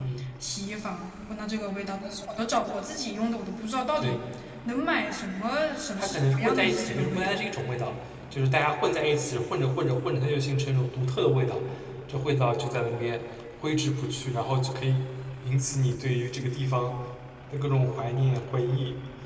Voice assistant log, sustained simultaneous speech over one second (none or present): present